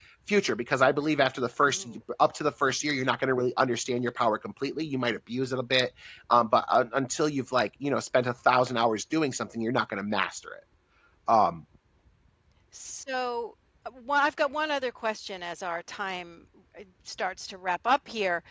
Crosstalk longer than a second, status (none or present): none